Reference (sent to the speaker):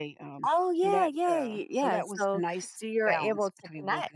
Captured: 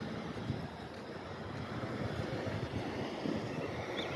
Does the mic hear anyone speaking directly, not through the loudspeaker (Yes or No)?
No